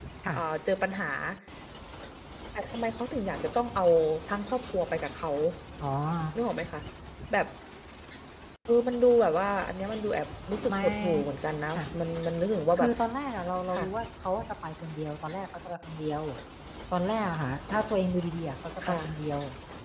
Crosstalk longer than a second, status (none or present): none